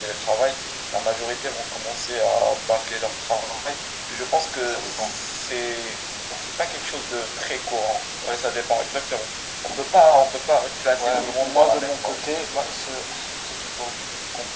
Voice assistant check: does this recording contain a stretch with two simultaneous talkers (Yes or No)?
Yes